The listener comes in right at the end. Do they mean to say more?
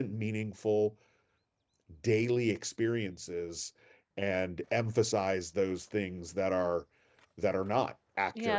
Yes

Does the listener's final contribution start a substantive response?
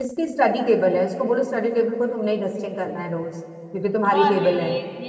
Yes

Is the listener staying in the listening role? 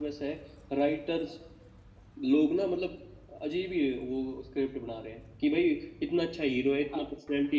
Yes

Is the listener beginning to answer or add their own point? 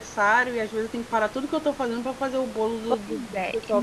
Yes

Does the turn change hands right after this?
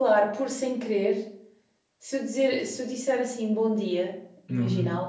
No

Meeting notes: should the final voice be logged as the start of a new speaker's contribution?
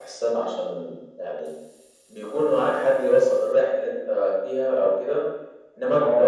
No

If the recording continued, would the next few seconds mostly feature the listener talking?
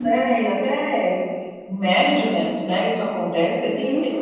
Yes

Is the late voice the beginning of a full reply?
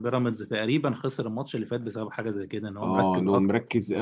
Yes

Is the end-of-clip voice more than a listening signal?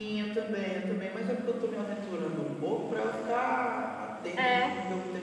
No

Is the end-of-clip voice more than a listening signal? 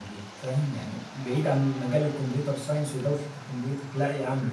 Yes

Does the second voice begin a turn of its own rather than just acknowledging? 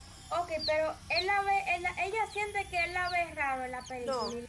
Yes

